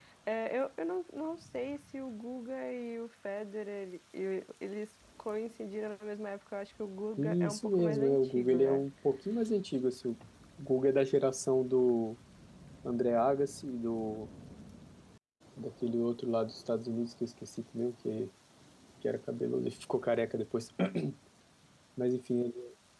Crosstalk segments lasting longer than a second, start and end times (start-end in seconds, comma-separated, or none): 7.2-8.8